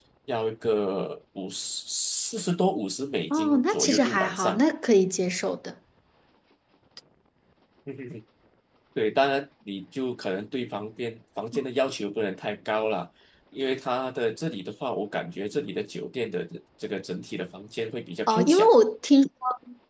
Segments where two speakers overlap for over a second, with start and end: 3.3-4.6

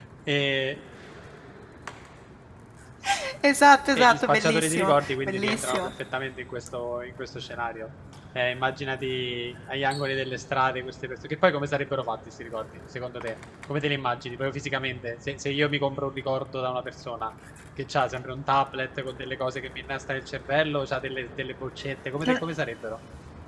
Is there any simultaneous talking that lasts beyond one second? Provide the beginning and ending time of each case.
4.0-5.9

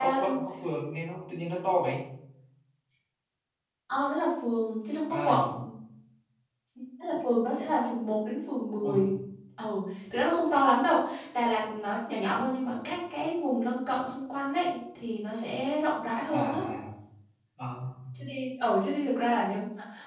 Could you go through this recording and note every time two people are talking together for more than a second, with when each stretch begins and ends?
none

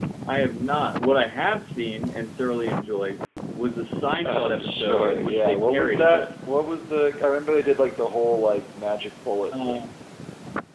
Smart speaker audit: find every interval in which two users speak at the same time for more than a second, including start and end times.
4.2-6.3

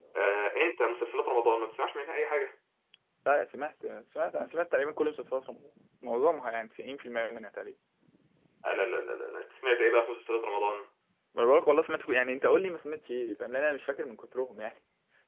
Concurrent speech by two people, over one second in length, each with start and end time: none

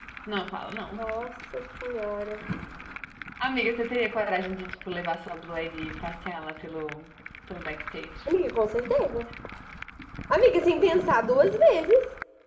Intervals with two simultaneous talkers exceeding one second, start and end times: none

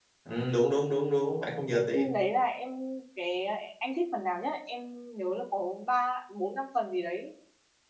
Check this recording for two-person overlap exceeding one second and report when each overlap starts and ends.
none

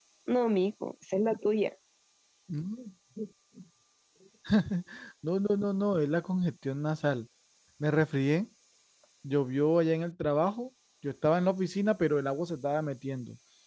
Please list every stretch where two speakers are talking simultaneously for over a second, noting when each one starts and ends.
none

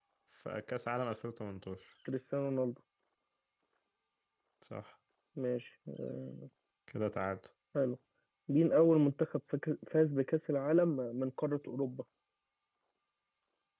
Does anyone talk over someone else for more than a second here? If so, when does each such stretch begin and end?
none

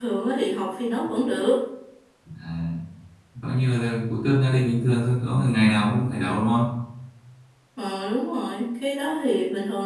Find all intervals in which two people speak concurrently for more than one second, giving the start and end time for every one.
none

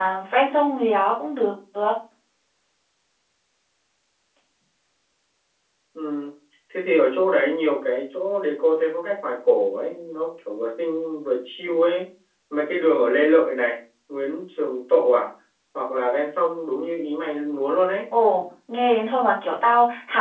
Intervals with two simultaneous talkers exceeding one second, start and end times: none

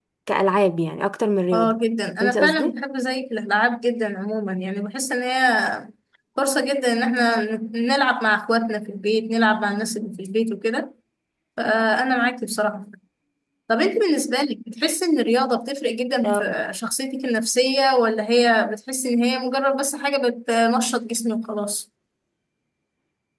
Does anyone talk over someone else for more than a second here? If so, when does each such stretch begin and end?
none

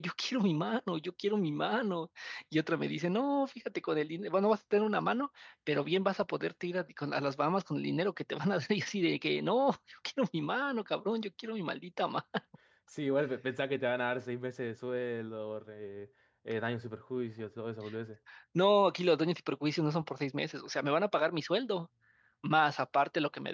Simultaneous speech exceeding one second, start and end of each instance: none

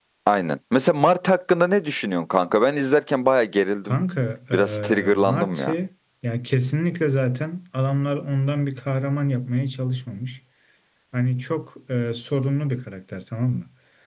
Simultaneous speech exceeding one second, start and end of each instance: 4.5-5.7

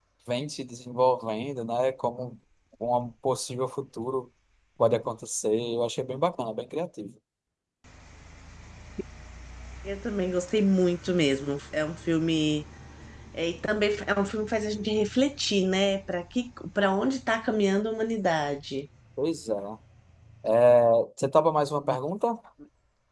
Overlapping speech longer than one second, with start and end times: none

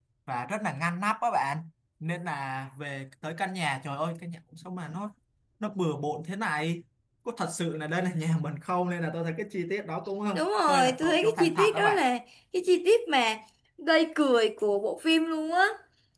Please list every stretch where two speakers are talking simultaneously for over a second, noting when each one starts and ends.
10.3-12.0

